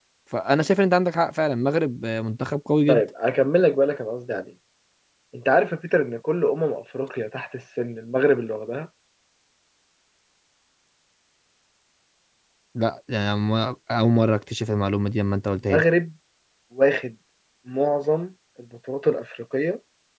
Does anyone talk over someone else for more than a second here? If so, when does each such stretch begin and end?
none

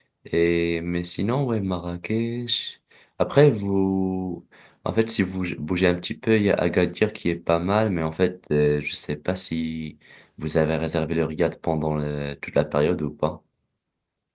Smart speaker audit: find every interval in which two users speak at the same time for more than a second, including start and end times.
none

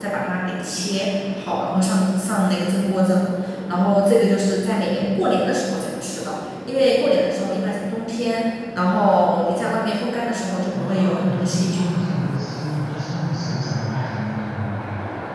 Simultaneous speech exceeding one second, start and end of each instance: 10.7-12.1

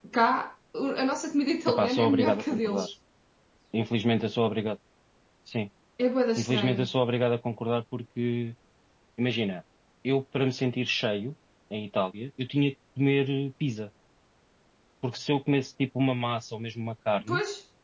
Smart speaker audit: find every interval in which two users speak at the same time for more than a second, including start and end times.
1.7-2.9

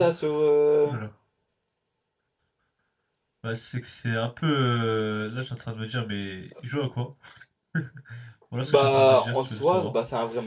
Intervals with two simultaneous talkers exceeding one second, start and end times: 8.7-9.9

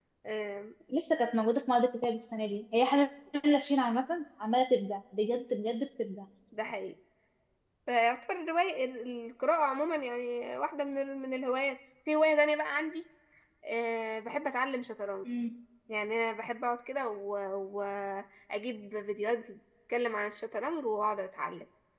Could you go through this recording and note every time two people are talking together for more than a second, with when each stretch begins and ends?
none

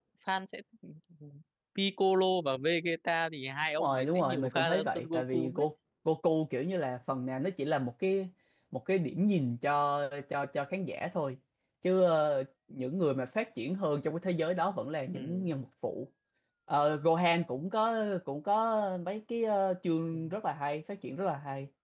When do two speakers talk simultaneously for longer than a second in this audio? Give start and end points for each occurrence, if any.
3.8-5.7

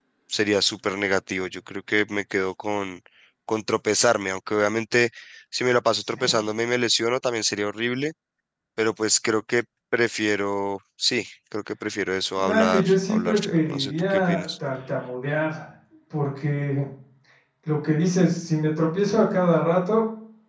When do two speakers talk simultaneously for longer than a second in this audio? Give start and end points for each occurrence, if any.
12.4-14.5

